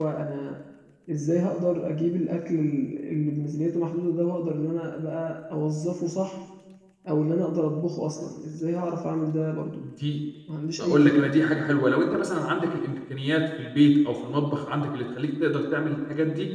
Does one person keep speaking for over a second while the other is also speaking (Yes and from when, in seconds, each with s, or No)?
No